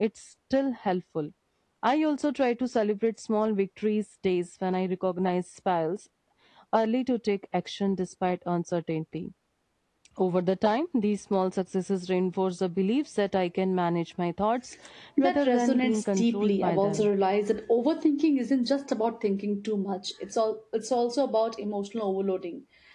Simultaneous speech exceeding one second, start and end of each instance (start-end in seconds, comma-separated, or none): 15.2-17.1